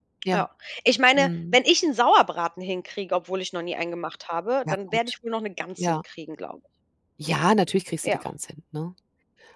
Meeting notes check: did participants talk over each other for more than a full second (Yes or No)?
No